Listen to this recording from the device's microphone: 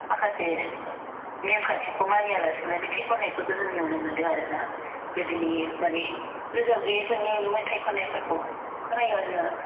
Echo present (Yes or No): Yes